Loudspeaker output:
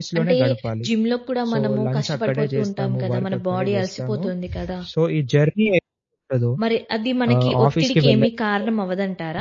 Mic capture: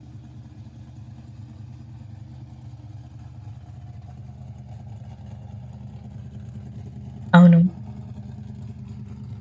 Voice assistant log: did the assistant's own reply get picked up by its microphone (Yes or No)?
No